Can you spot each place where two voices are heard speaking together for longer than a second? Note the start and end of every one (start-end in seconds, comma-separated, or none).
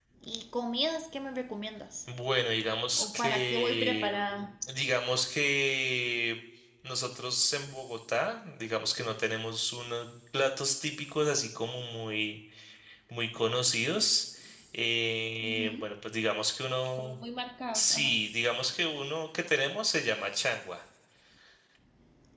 3.0-4.5